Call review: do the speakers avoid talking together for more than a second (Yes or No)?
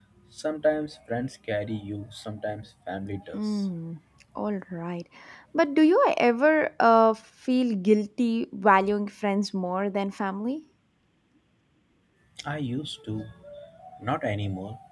Yes